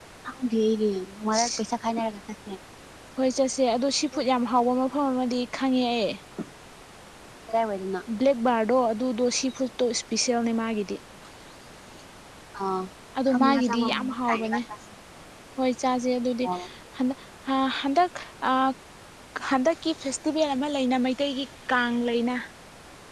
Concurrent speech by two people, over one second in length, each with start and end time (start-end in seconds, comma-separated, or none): 13.3-14.6